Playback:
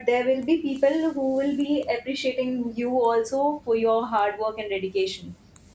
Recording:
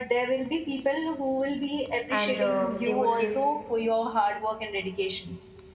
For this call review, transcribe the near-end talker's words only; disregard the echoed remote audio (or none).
and um they would give